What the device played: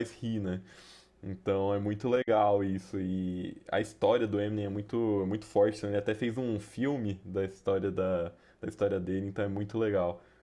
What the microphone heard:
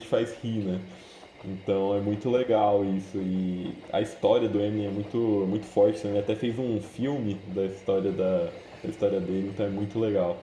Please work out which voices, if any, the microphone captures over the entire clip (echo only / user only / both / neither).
echo only